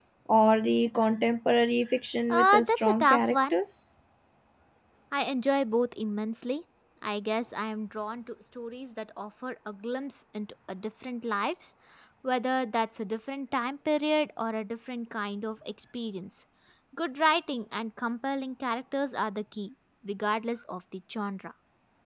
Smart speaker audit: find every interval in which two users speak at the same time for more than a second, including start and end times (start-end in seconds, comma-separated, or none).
2.3-3.6